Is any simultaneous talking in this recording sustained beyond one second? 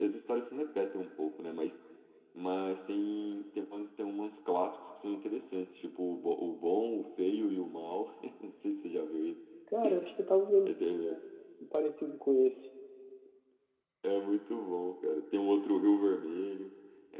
No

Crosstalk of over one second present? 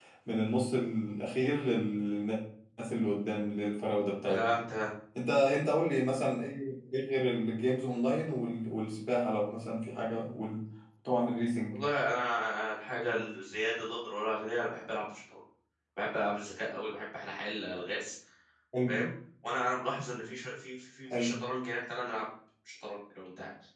No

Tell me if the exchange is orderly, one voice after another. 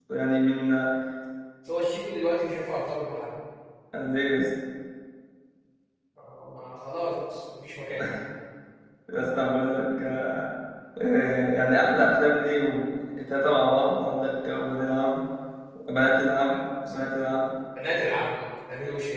Yes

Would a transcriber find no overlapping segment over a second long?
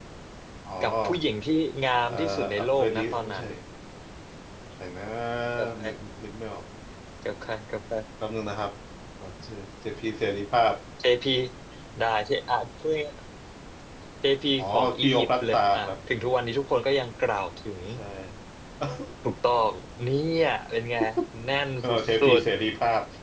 No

